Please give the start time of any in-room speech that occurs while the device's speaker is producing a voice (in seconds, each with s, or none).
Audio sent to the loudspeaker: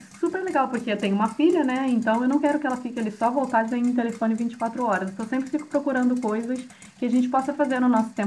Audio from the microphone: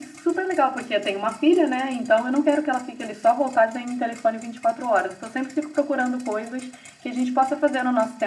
none